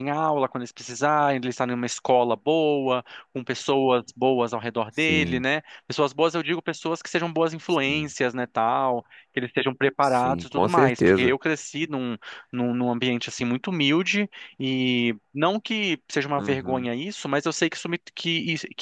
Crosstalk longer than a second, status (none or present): present